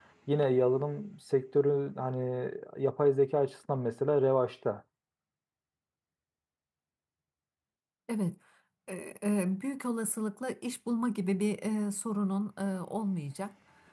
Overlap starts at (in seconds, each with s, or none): none